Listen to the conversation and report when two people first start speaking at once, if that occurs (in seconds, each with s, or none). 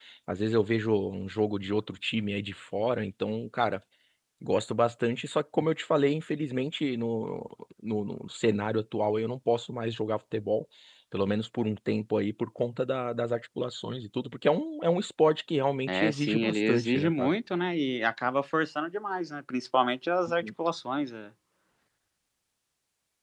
15.9 s